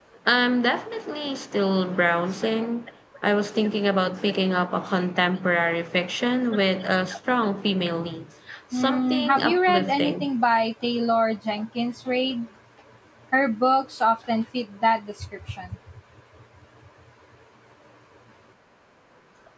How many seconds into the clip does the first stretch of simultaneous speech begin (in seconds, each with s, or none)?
8.7 s